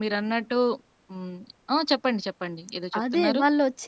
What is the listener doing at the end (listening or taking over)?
taking over